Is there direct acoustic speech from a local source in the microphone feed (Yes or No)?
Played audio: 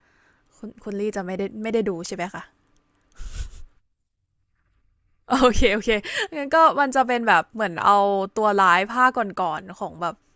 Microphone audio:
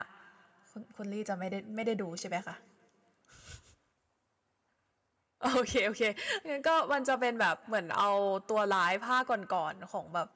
No